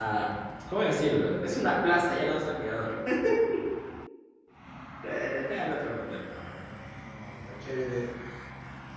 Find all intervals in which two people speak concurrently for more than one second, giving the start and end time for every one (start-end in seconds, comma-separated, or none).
none